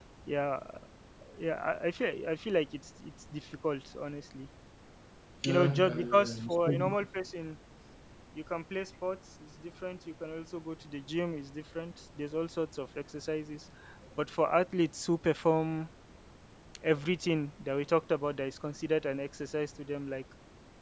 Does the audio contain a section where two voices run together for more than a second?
Yes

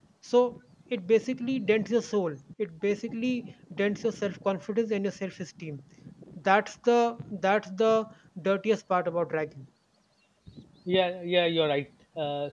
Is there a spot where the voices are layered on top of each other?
No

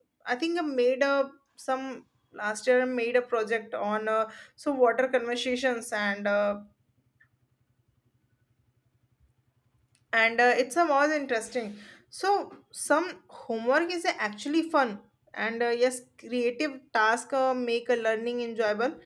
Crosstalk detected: No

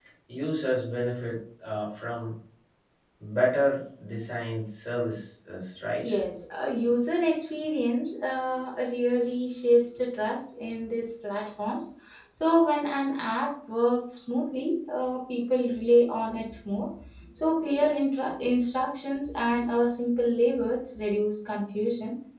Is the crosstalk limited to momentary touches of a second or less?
Yes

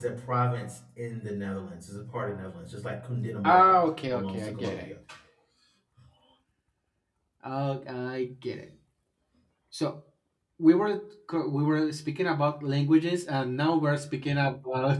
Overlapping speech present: Yes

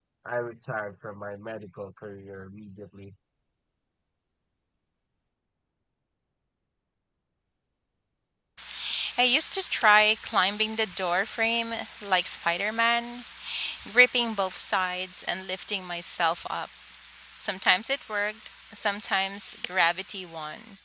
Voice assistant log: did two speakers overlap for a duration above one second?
No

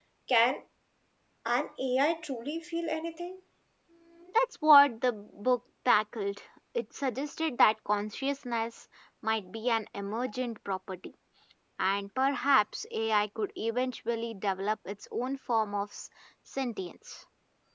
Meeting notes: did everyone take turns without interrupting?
Yes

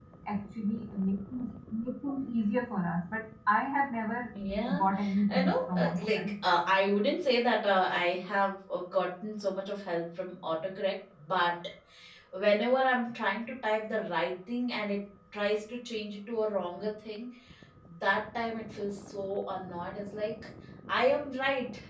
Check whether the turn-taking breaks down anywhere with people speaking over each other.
Yes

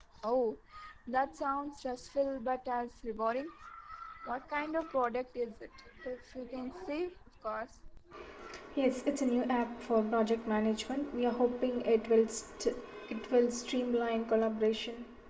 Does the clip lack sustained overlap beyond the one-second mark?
Yes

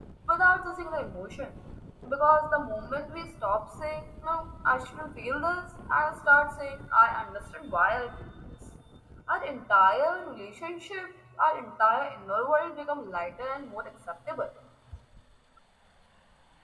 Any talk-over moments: No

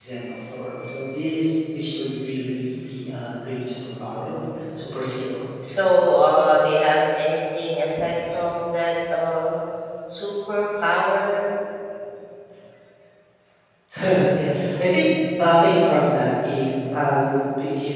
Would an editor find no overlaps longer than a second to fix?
Yes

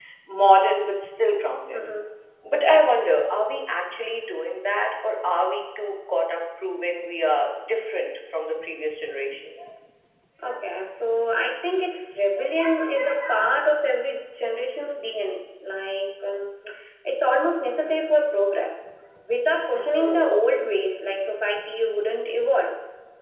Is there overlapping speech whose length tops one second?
No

